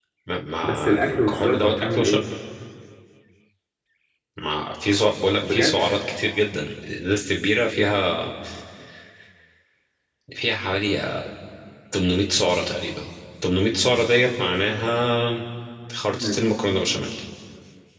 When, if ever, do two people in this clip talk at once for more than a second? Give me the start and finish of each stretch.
0.6-2.2

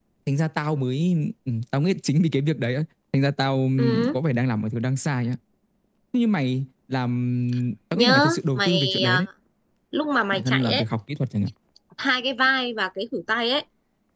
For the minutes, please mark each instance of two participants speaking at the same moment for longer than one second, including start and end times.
7.9-9.2

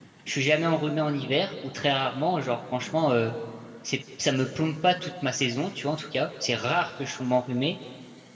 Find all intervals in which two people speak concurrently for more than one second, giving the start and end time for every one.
none

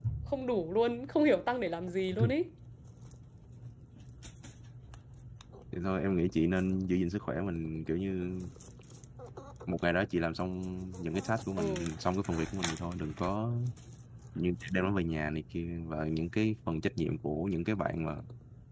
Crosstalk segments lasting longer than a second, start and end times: none

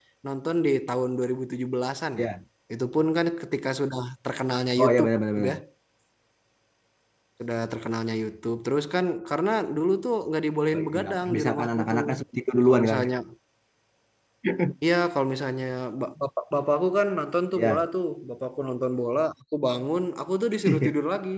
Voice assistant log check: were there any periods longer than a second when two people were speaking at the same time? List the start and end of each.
10.7-12.0

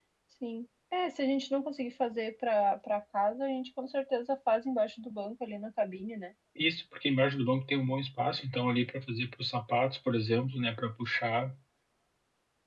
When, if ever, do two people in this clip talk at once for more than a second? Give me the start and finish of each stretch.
none

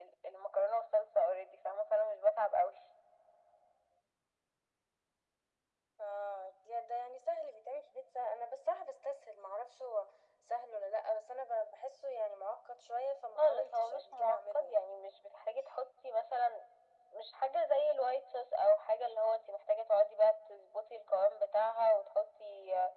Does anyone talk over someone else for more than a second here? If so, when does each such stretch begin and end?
13.4-14.8

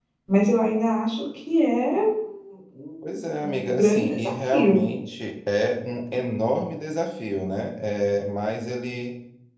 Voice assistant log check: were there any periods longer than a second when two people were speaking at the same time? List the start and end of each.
3.4-4.8

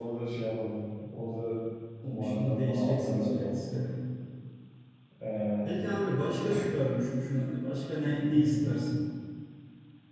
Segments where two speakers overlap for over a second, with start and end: 2.1-3.8

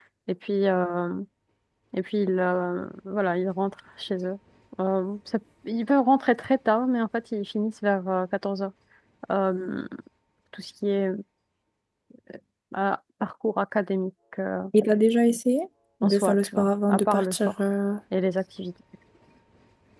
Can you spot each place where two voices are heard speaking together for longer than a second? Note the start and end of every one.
16.0-17.5

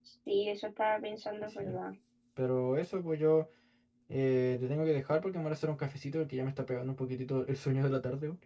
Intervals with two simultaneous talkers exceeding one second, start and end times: none

